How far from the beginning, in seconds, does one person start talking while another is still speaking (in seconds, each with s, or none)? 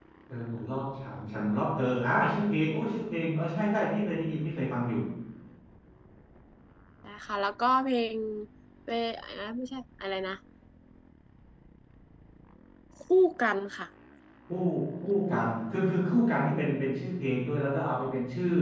none